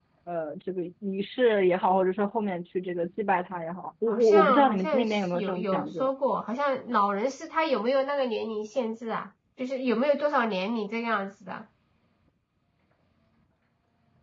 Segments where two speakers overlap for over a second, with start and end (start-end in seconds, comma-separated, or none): 4.1-6.1